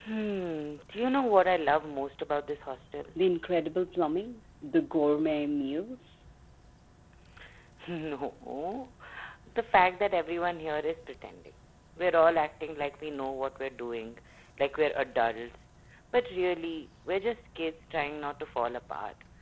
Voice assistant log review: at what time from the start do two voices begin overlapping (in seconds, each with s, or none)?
none